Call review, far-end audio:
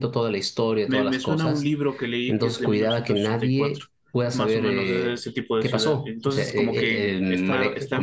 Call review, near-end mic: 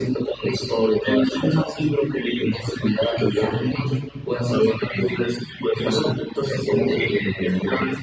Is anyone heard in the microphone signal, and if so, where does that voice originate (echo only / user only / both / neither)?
echo only